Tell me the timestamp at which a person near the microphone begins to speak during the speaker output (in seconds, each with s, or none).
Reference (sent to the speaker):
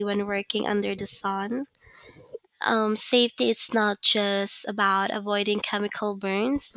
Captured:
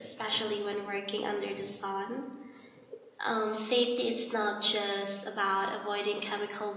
none